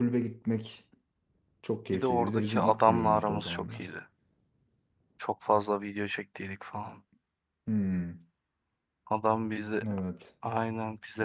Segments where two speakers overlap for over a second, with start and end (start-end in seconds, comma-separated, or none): 1.9-3.9